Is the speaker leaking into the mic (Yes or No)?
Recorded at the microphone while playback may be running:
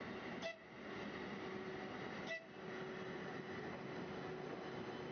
No